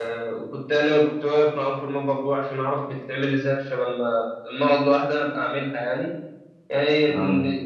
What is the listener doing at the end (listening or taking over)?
listening